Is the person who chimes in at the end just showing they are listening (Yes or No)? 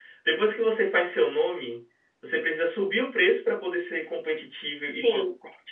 Yes